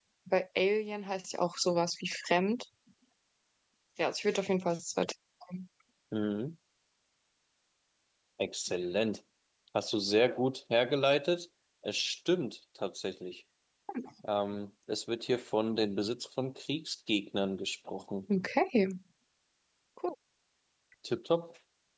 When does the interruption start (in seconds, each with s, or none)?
none